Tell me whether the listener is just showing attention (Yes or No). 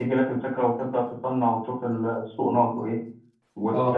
Yes